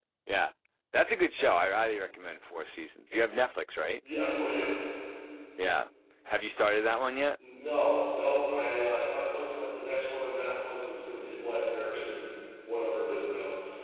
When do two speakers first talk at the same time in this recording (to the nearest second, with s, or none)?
none